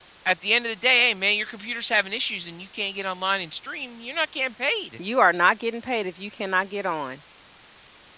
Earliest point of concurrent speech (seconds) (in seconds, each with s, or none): none